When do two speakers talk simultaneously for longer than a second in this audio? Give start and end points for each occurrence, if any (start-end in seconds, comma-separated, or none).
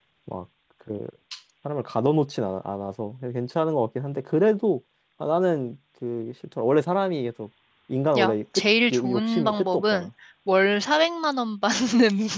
8.2-10.1